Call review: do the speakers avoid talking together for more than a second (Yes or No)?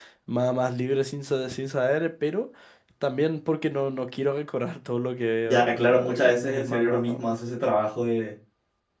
No